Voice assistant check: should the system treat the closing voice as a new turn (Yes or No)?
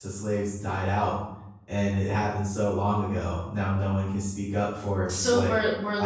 Yes